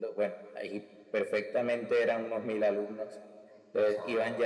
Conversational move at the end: listening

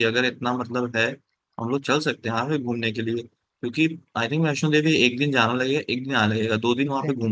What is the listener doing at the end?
taking over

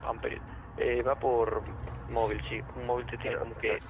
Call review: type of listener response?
taking over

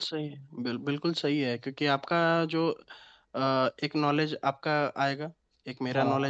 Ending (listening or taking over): listening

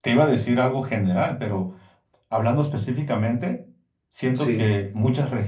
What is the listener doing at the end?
listening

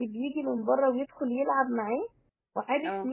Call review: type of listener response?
listening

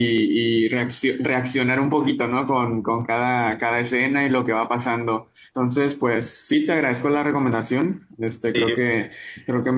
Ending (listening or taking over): listening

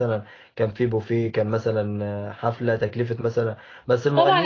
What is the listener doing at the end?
taking over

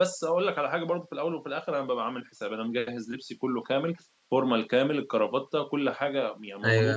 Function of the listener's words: listening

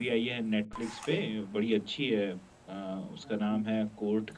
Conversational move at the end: listening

